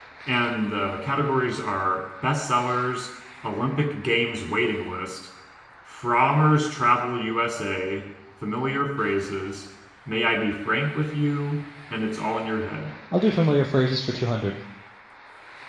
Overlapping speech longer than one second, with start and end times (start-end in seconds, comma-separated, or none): none